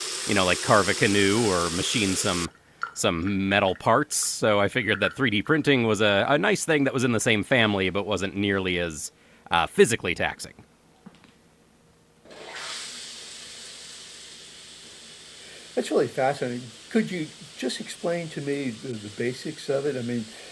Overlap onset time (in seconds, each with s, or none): none